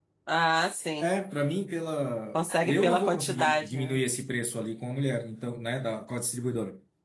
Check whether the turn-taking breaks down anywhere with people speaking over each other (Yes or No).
Yes